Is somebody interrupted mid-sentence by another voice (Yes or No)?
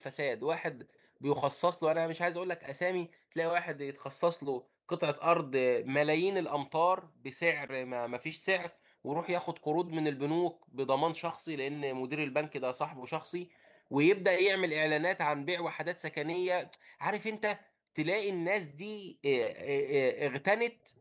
No